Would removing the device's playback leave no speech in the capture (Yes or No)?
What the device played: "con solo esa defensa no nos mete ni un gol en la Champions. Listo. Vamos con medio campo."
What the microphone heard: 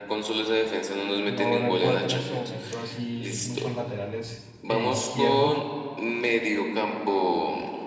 No